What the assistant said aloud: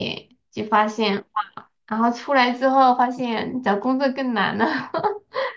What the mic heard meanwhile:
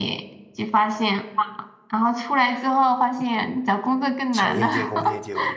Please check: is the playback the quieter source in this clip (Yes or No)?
No